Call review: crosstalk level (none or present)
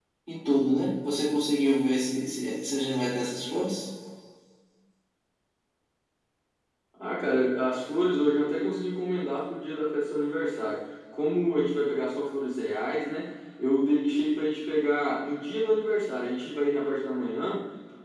none